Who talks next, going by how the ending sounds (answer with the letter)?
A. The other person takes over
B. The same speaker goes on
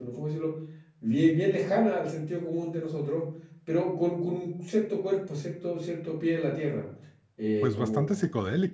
A